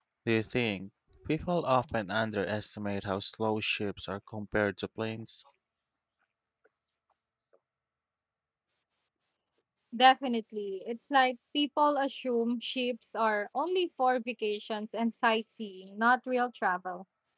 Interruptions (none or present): none